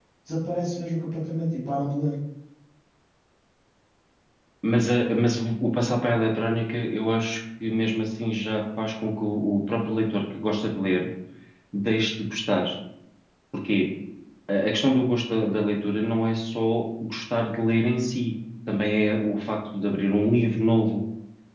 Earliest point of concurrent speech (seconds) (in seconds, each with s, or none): none